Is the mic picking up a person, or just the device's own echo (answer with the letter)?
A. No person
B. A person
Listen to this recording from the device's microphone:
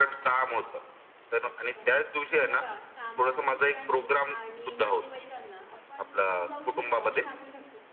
B